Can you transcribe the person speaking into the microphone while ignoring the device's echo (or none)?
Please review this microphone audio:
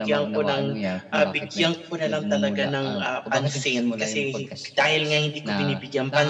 none